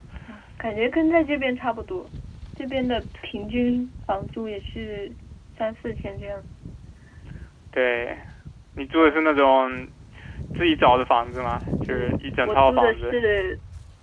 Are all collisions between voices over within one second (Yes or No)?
No